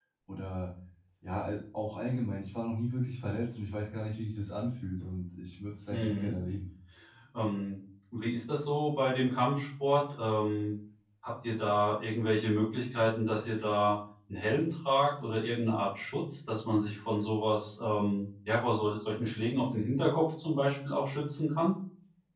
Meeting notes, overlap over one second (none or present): none